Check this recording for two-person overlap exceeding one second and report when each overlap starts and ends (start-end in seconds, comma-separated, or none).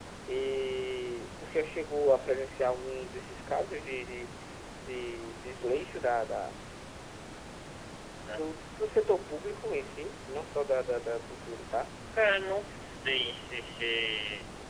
none